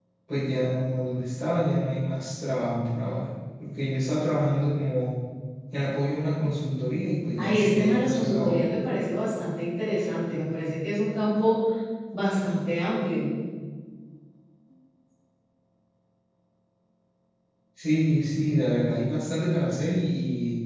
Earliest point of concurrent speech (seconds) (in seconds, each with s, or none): 7.3 s